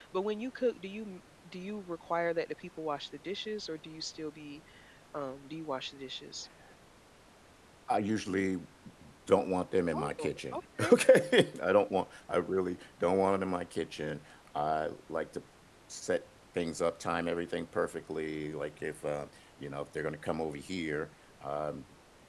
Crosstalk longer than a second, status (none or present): none